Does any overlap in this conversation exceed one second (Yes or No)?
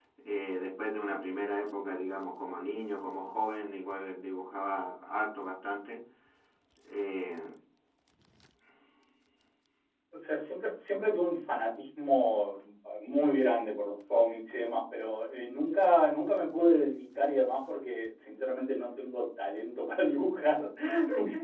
No